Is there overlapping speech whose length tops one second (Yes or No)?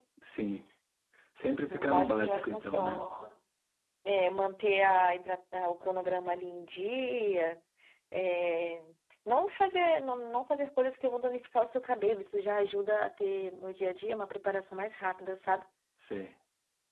Yes